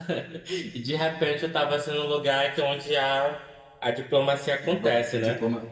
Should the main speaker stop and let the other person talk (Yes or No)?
Yes